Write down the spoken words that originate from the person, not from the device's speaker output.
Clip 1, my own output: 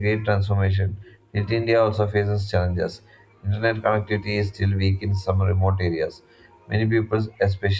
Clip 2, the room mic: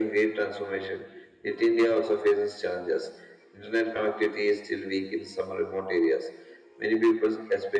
none

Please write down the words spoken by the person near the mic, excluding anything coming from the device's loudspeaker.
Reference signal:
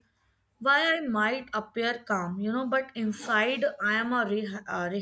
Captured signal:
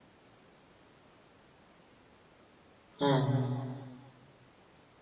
Hmm.

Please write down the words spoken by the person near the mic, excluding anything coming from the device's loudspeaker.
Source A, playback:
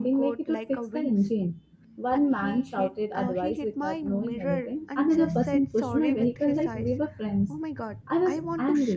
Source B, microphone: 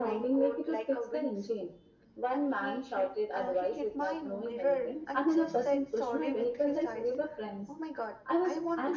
none

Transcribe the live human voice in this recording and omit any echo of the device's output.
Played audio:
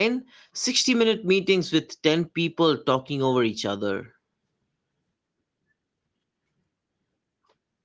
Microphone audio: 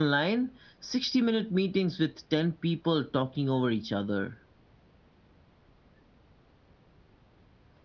none

